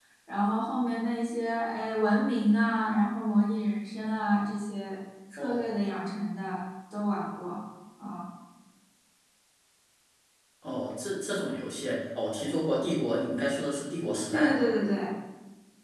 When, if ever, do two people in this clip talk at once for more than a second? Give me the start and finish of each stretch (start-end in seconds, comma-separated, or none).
none